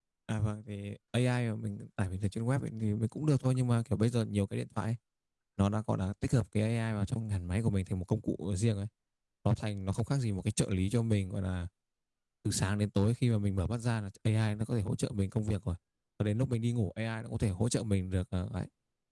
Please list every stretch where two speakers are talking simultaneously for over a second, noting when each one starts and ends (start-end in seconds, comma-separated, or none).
none